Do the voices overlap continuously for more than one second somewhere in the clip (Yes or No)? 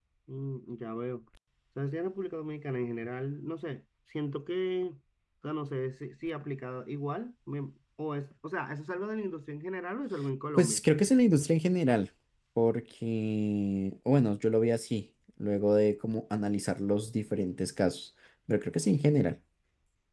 No